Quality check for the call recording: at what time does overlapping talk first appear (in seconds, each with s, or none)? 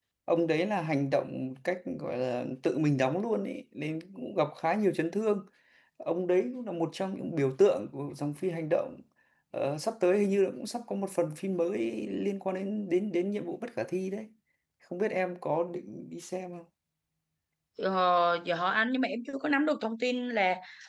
none